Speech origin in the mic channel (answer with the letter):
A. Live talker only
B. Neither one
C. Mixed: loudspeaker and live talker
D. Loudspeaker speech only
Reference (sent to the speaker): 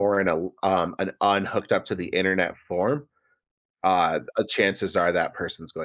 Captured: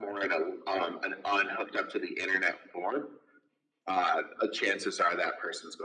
D